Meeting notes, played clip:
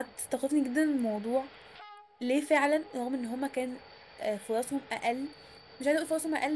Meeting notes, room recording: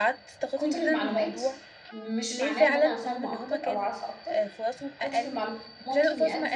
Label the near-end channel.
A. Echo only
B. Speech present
B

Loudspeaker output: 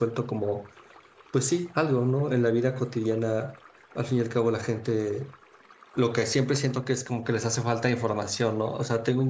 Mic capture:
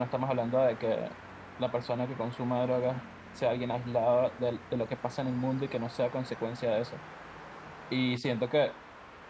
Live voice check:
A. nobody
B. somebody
B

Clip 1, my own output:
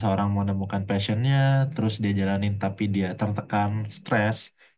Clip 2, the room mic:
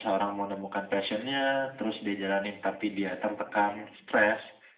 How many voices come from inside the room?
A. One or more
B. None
B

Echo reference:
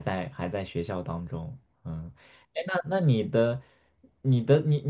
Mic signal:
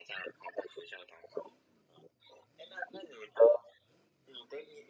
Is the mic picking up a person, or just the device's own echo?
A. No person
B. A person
A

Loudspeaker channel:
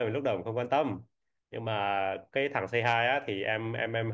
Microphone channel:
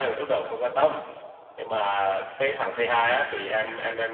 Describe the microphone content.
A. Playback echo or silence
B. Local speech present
A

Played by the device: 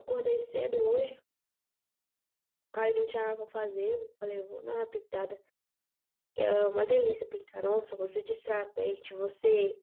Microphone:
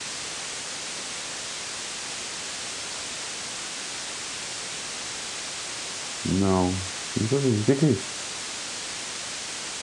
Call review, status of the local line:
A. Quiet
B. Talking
B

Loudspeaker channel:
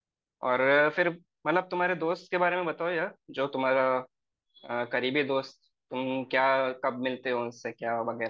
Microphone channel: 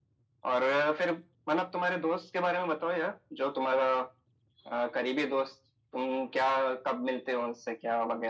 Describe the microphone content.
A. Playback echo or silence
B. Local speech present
A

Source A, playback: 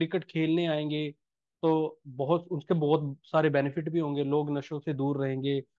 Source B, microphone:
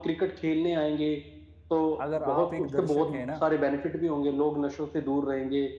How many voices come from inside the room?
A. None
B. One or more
B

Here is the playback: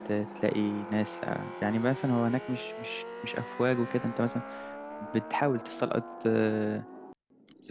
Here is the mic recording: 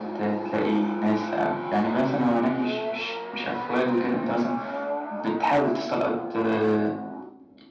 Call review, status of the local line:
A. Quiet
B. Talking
A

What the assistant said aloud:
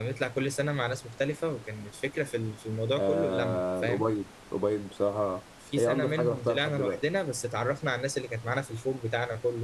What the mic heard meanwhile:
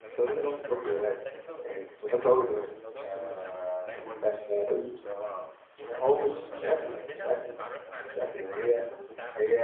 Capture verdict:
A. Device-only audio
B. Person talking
B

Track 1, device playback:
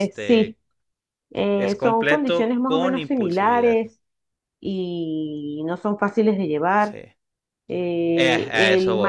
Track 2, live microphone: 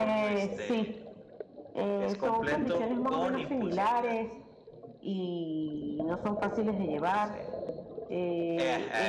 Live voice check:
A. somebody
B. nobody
B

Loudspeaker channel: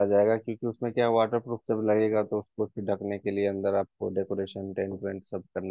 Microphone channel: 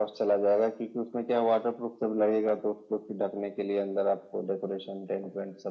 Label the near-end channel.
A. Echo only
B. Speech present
A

